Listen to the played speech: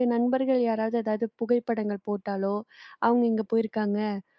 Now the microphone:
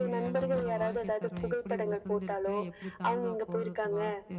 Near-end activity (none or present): present